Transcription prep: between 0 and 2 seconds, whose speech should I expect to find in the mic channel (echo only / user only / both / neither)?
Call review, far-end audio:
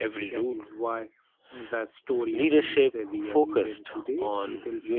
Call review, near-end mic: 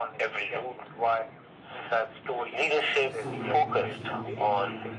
echo only